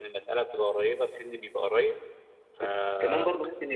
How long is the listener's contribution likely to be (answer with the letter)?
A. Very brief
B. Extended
B